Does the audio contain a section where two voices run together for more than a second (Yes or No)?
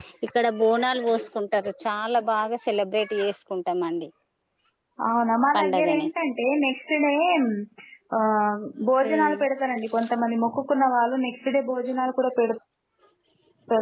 No